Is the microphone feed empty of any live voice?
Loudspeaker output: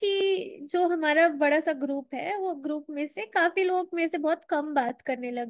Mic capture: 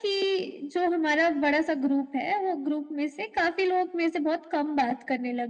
Yes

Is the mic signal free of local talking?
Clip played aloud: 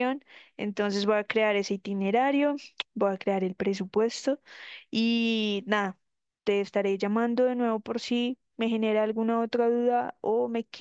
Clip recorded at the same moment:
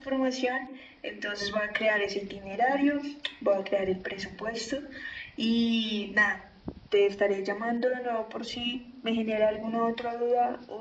Yes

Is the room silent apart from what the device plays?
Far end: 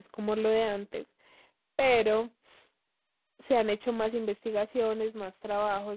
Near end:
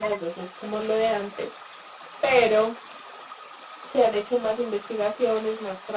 Yes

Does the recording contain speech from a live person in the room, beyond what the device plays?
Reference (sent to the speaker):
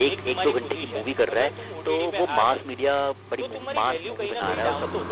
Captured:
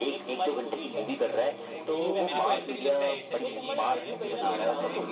Yes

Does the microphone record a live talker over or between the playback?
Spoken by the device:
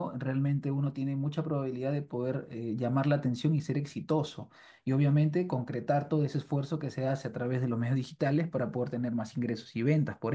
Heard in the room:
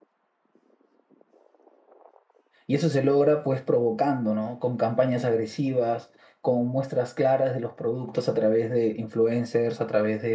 Yes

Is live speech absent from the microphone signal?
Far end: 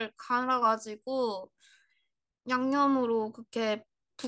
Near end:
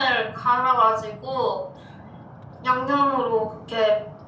Yes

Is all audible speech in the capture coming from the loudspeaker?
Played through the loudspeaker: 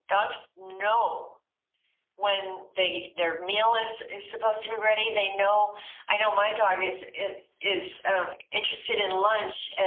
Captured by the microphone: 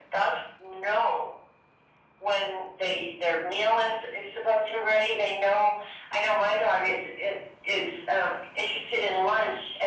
Yes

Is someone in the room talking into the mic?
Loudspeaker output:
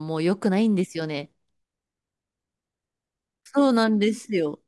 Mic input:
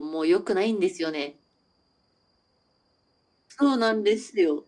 No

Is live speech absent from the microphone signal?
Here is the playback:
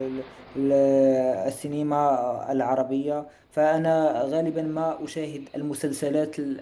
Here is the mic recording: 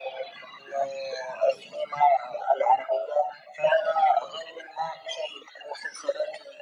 Yes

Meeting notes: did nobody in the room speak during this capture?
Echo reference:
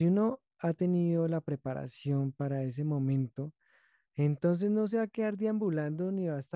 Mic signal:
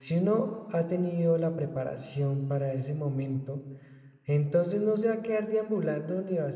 Yes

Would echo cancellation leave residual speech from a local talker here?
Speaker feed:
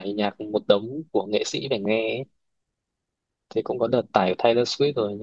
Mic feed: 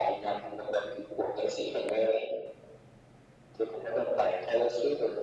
No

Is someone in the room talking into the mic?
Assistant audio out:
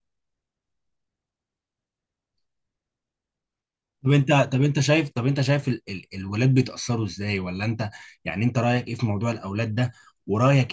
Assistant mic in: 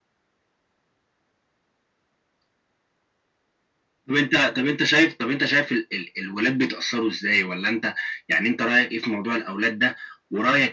No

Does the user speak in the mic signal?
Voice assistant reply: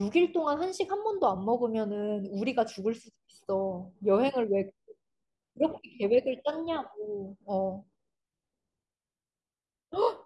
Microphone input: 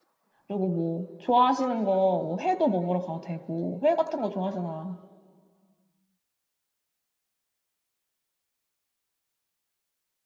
Yes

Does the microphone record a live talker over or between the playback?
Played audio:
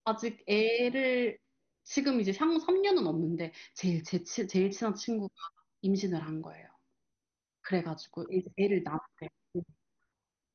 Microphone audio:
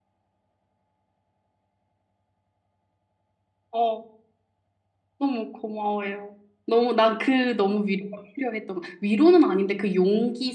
Yes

